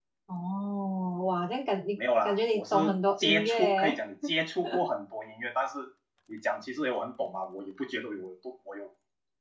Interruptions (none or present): present